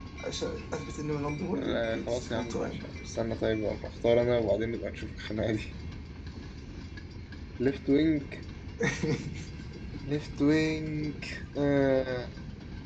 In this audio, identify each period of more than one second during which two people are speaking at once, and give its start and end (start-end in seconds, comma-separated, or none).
1.6-2.8